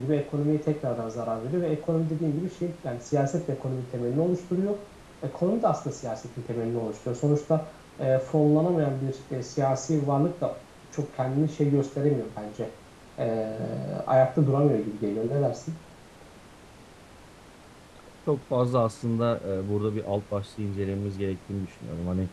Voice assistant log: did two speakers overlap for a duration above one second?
No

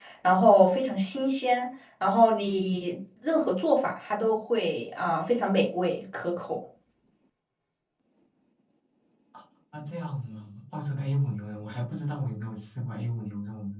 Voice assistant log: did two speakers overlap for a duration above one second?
No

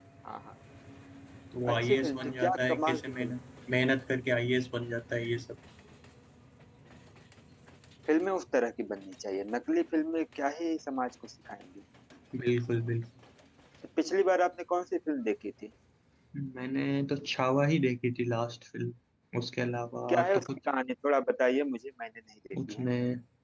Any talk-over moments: Yes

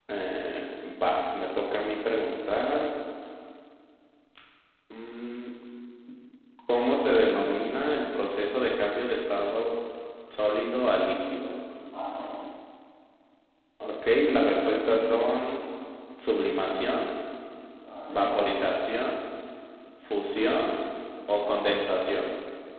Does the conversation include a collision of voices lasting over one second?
Yes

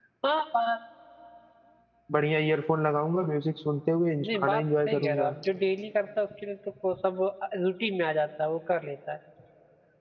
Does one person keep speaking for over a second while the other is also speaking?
Yes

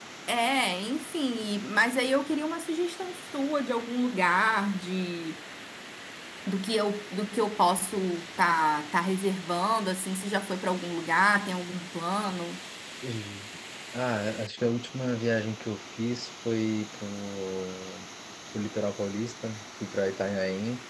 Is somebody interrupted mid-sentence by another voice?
No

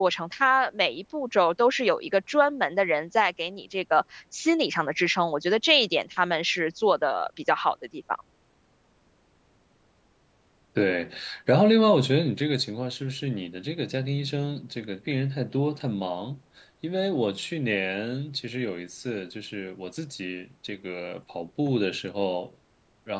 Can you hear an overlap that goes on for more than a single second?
No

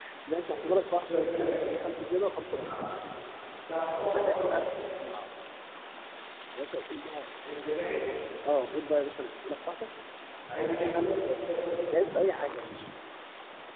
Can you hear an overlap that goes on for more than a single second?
Yes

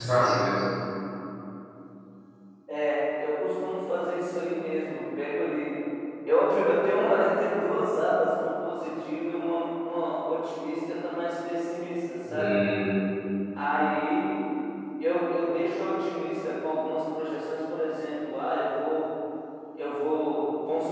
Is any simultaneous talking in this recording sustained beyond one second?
No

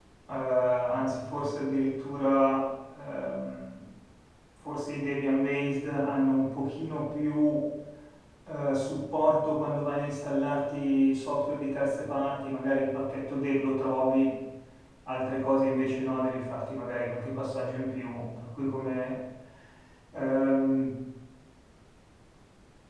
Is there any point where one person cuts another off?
No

